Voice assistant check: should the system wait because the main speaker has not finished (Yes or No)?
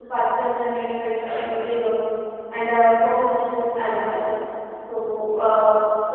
Yes